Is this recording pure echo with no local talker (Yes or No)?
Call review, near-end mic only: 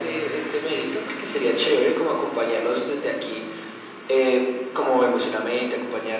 Yes